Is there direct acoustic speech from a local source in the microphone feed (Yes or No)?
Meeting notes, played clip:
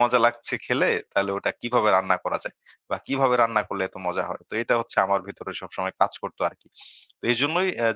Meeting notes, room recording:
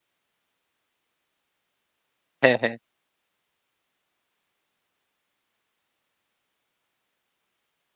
Yes